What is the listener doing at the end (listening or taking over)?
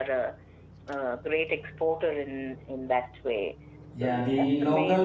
taking over